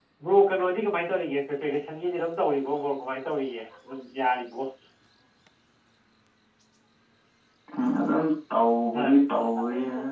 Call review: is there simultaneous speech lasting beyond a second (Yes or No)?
No